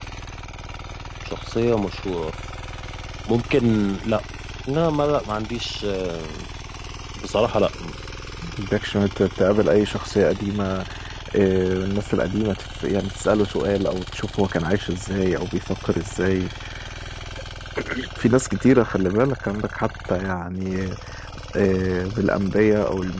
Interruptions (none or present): none